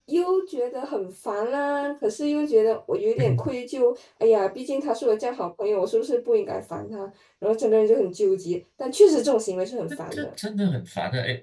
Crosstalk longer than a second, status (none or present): none